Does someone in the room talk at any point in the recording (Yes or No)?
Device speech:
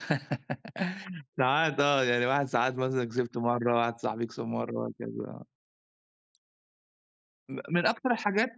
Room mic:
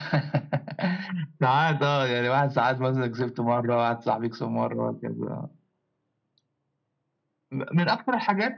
No